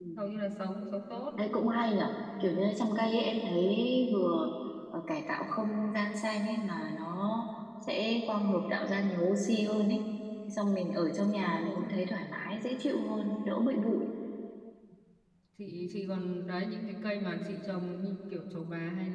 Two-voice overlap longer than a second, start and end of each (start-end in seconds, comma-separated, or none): none